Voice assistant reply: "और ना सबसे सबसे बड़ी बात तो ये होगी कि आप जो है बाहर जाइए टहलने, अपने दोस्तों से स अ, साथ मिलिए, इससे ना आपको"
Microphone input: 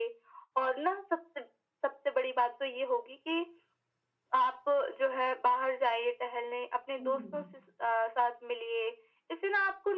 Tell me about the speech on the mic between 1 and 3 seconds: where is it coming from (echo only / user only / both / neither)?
echo only